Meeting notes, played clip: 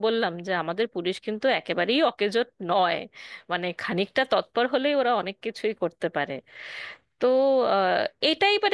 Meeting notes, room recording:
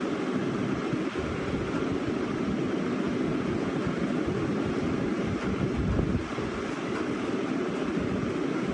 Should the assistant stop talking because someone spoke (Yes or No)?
No